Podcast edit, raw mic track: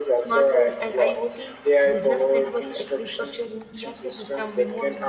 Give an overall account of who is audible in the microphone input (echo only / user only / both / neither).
both